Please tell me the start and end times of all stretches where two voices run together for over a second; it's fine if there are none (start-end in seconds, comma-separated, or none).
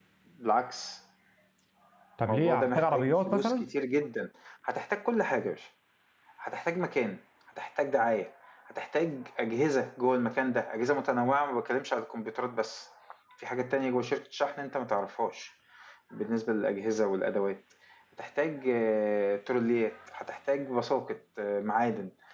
2.3-3.5